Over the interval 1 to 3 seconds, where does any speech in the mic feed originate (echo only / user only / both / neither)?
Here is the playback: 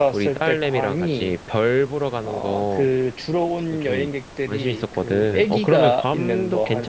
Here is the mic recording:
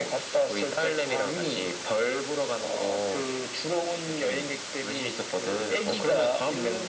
echo only